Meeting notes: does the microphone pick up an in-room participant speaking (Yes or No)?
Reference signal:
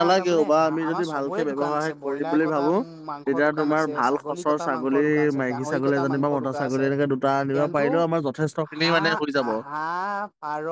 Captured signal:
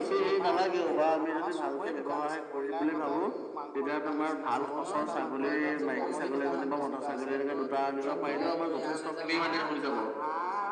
Yes